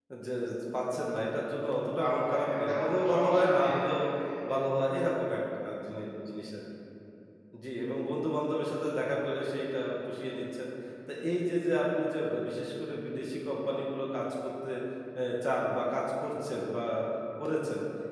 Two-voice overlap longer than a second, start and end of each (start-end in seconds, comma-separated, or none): 2.0-3.8